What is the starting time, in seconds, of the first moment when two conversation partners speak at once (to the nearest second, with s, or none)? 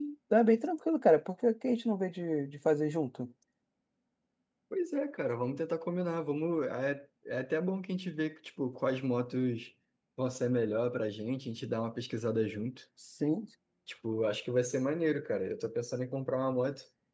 none